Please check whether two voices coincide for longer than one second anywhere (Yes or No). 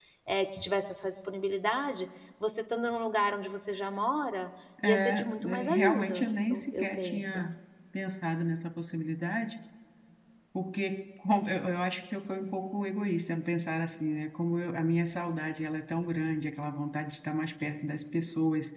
Yes